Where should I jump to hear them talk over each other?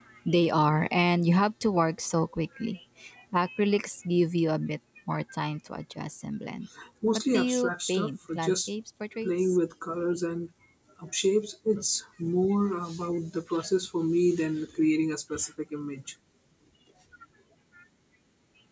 7 s

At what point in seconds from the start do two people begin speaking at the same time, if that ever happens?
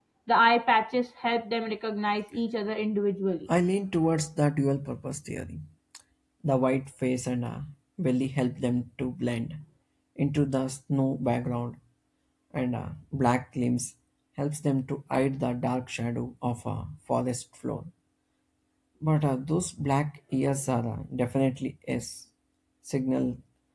none

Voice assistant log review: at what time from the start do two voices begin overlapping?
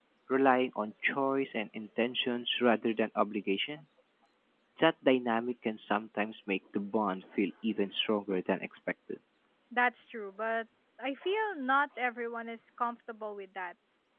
none

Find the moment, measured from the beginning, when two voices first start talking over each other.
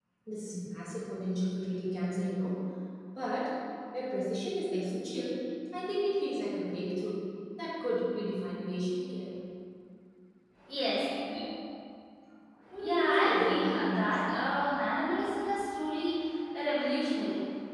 13 s

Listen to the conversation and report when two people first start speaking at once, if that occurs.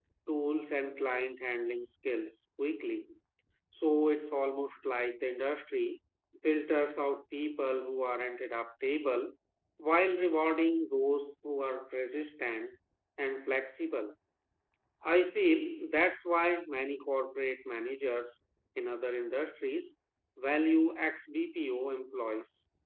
none

